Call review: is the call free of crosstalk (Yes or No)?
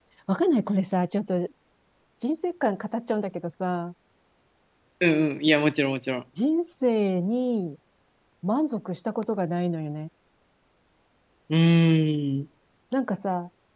Yes